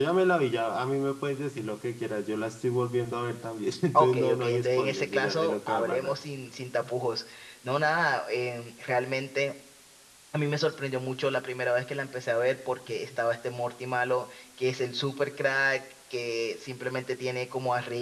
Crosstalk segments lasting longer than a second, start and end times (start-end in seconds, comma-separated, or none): 3.9-6.2